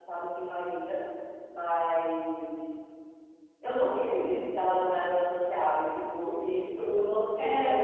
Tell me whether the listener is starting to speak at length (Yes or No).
No